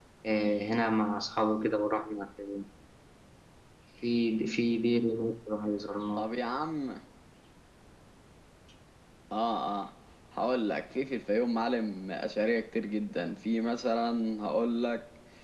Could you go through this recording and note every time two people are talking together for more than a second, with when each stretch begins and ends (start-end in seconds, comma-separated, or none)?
none